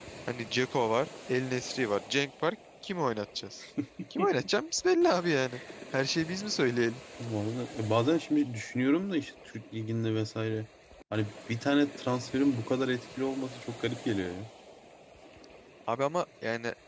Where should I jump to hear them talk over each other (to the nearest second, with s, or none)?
none